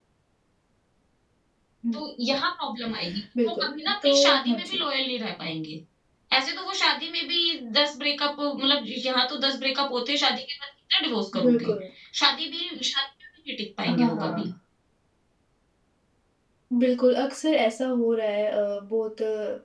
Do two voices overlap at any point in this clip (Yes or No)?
Yes